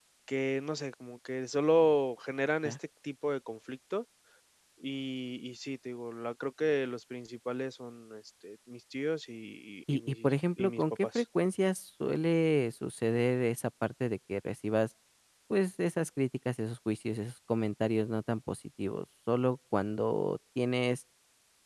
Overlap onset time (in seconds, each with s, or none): 9.9 s